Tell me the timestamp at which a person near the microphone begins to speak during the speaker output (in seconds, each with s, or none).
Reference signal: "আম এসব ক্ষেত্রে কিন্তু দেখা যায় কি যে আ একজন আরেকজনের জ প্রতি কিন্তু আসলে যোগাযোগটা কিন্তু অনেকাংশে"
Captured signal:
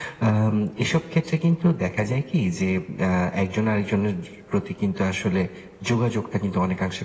none